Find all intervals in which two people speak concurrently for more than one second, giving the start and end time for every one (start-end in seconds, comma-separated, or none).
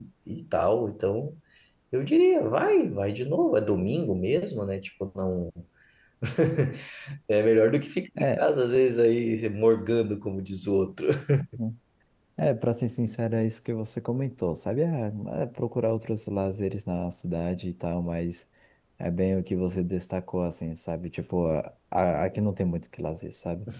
none